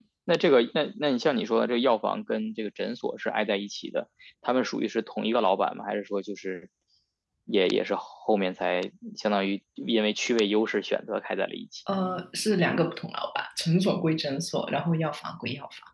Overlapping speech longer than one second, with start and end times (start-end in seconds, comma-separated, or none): none